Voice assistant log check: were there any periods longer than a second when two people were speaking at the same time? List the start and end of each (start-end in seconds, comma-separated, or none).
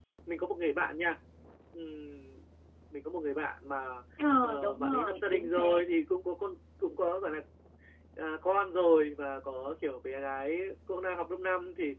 4.4-5.8